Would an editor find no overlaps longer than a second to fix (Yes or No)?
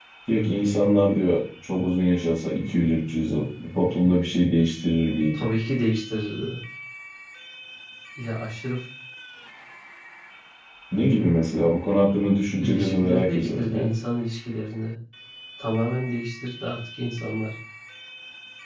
No